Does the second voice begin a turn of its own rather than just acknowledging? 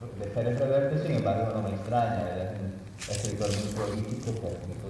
No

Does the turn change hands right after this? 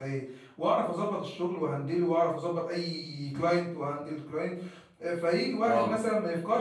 No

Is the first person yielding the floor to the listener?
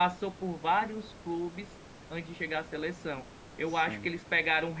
No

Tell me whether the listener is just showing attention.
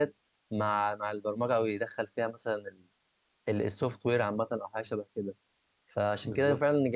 Yes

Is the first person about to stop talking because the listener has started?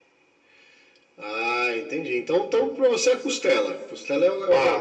Yes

